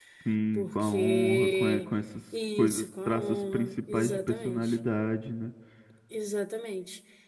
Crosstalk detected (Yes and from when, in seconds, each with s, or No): Yes, from 0.6 s